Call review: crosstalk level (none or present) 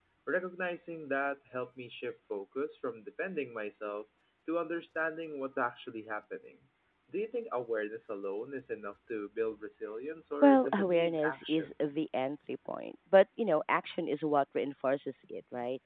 present